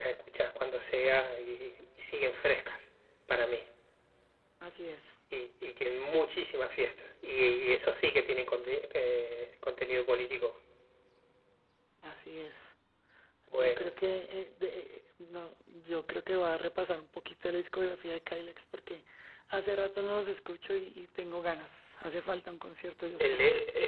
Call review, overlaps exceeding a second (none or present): none